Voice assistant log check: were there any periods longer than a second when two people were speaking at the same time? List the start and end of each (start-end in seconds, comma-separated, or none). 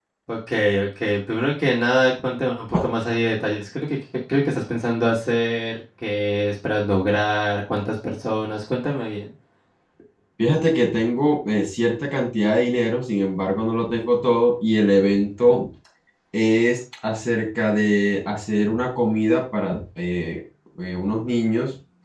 none